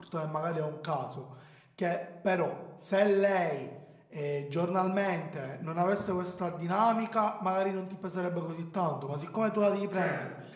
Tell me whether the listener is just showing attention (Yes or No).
Yes